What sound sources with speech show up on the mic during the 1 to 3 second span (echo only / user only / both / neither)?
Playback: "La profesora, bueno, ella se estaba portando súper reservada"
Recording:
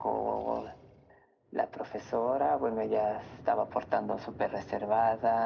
echo only